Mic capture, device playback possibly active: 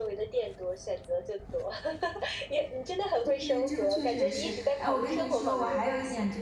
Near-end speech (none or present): present